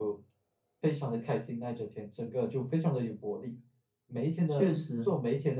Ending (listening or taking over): listening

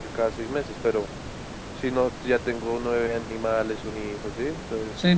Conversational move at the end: taking over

